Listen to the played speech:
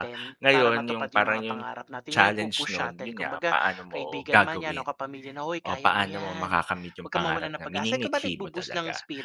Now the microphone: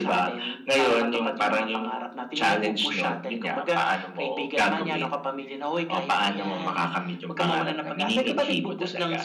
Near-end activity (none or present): none